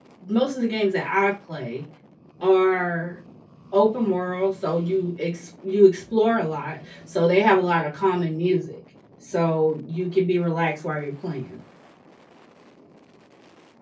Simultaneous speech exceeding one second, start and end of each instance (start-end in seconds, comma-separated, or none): none